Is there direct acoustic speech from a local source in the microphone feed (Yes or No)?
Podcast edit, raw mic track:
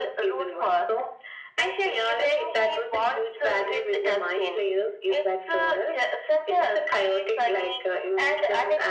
No